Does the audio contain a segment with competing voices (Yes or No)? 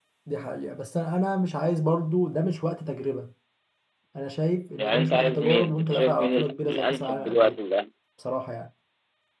Yes